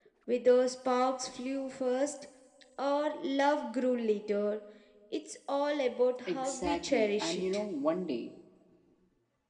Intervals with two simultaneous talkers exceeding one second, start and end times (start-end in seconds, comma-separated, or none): 6.3-7.7